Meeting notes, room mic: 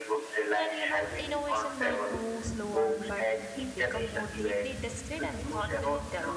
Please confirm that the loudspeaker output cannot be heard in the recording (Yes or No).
No